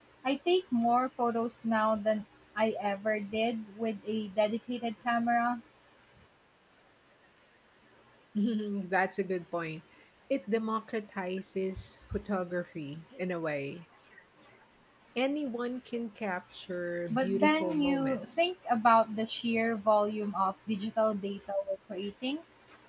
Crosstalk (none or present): present